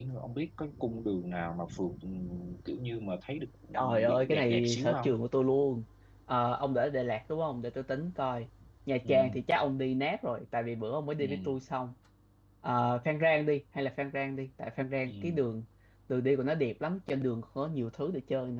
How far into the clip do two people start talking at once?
4 s

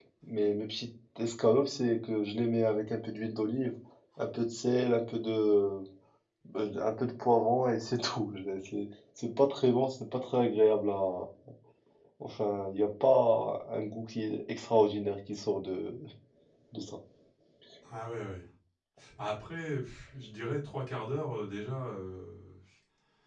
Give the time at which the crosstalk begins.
none

